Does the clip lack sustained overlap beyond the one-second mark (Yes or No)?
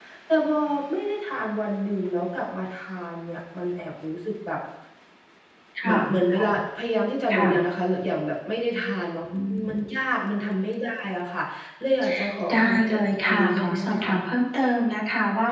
No